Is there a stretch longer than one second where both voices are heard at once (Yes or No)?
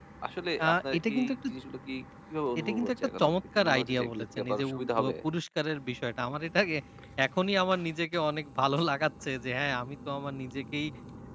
Yes